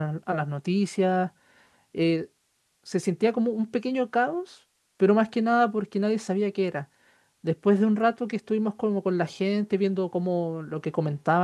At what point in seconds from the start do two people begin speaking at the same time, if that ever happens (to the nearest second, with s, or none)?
none